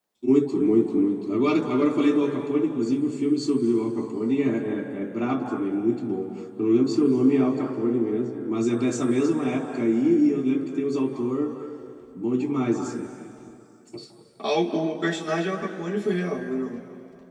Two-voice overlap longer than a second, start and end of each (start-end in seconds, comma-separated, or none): none